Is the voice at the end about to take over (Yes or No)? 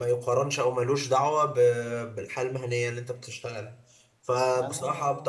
No